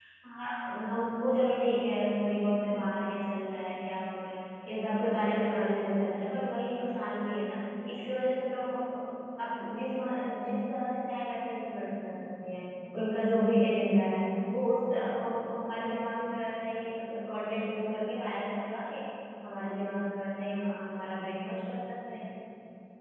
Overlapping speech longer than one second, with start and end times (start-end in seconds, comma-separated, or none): none